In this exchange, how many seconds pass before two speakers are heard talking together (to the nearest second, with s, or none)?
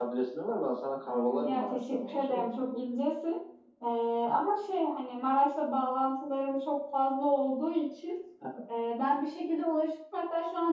1 s